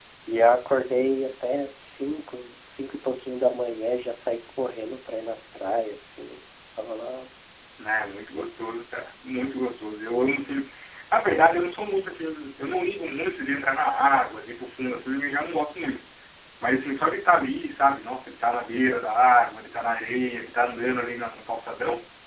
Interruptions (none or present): none